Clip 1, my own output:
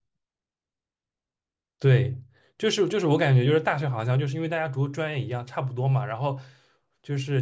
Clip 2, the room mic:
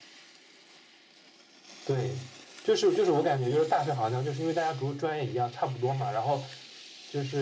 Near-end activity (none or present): none